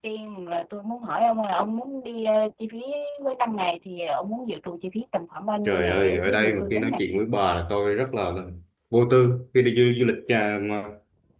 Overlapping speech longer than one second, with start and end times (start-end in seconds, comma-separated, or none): 5.7-6.9